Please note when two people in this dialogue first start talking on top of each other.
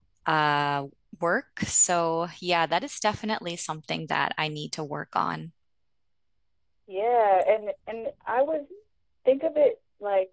none

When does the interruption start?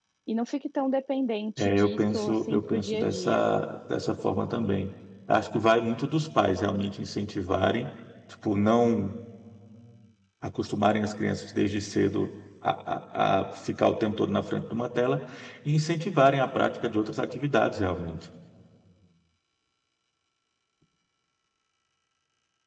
1.6 s

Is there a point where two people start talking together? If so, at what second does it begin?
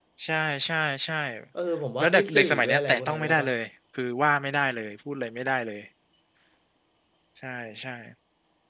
2.0 s

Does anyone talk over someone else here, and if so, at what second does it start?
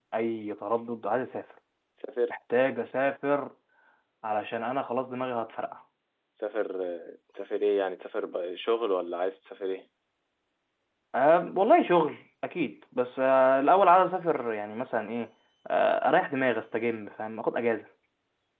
none

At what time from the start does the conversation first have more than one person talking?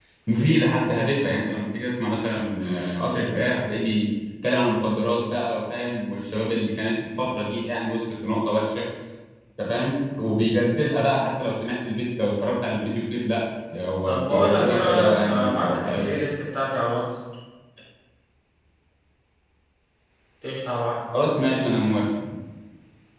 14.1 s

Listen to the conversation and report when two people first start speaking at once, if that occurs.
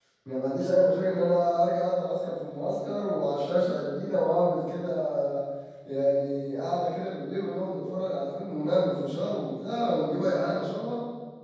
none

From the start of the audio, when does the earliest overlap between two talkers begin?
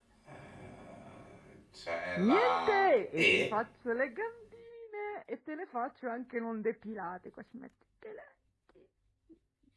2.2 s

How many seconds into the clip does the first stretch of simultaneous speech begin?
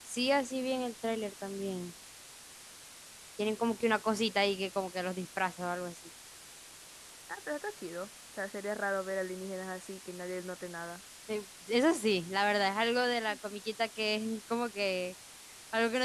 none

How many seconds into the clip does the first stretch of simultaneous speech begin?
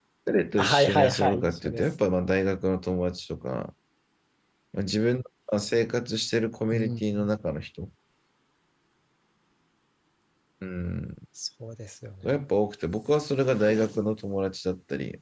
0.6 s

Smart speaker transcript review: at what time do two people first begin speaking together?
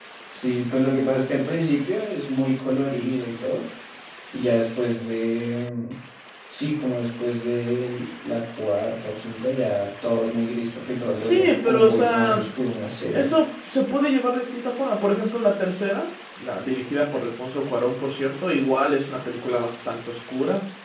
11.2 s

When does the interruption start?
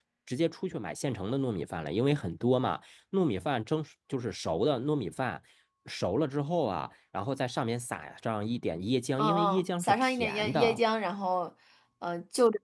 9.2 s

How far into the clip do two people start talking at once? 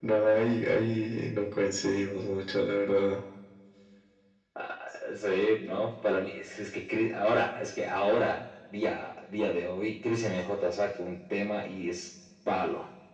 none

